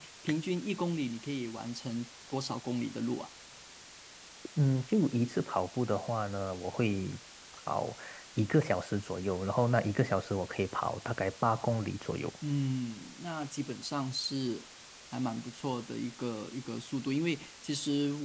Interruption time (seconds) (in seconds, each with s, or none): none